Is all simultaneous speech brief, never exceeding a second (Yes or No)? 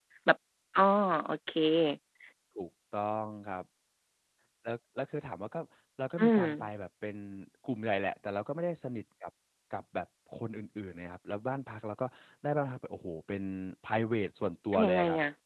Yes